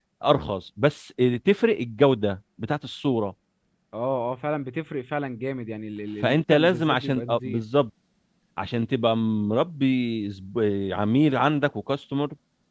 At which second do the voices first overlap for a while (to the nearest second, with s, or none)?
6 s